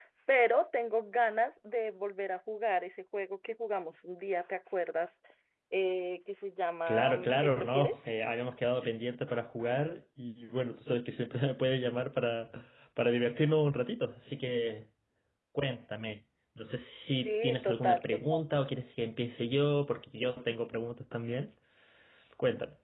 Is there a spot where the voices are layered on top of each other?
Yes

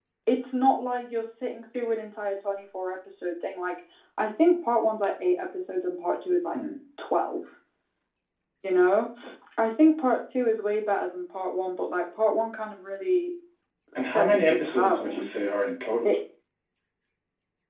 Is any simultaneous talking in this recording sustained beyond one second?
Yes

